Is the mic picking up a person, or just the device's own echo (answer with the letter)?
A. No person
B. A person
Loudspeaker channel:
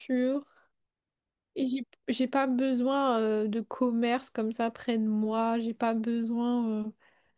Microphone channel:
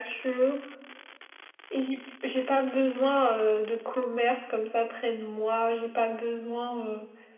A